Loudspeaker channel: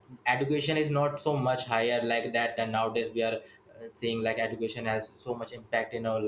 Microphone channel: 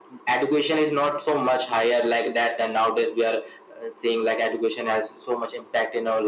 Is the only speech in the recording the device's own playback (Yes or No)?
Yes